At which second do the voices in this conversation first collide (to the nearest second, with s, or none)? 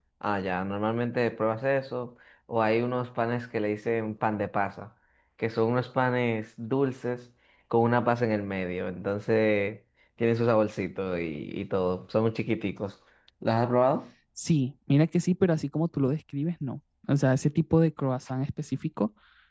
none